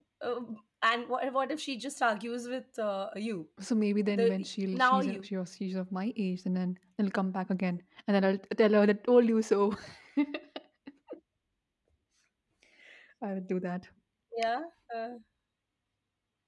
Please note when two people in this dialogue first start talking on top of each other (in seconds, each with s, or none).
4.1 s